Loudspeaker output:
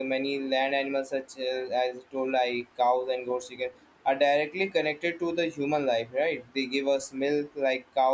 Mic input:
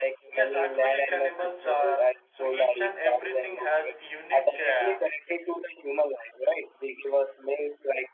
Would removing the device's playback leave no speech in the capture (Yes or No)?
No